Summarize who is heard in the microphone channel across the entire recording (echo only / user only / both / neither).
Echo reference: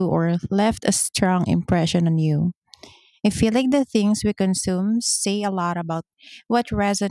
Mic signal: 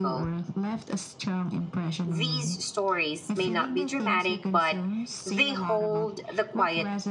both